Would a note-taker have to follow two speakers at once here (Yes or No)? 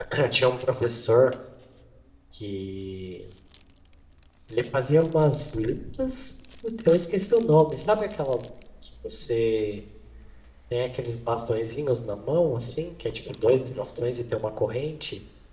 No